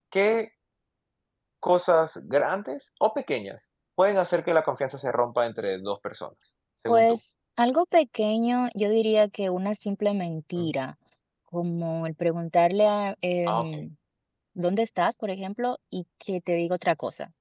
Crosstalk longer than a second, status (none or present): none